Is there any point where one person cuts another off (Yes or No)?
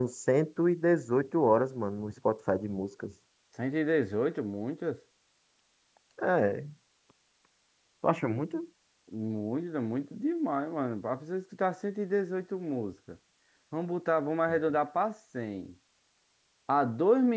No